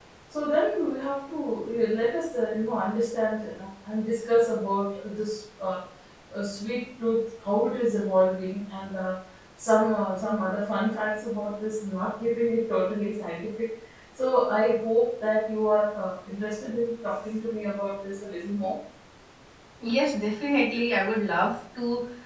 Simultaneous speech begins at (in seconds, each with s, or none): none